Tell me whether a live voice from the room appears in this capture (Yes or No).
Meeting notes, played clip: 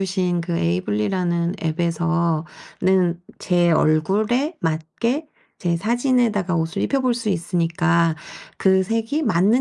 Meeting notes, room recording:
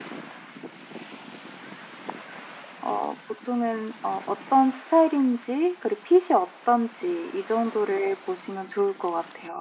Yes